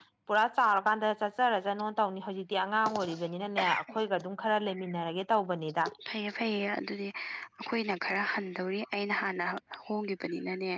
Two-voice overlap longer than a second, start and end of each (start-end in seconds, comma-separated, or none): none